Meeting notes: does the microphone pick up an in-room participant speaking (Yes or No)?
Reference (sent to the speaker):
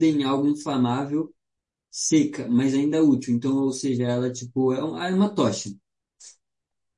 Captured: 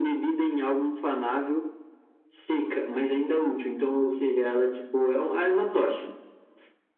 No